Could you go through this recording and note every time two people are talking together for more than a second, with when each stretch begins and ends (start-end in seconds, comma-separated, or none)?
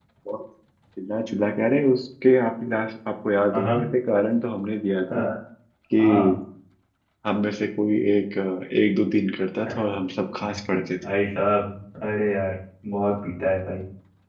none